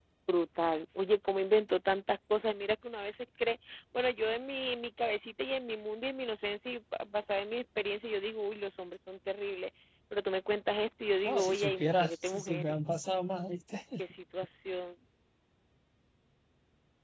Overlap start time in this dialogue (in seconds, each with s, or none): 11.2 s